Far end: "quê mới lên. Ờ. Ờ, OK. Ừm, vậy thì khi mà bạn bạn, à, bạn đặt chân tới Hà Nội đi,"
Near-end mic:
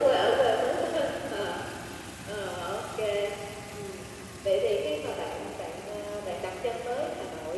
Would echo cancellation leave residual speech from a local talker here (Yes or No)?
No